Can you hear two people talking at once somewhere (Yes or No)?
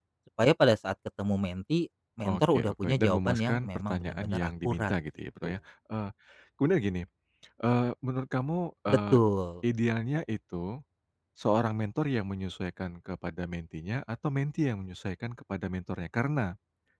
Yes